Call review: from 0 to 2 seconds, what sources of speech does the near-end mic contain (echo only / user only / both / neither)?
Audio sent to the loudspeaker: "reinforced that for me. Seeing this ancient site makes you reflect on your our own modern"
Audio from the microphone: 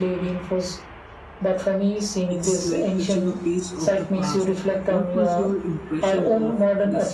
echo only